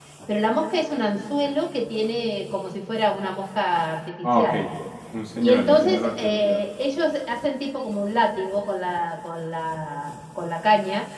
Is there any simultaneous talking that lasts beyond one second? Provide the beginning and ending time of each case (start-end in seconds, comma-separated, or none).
5.4-6.6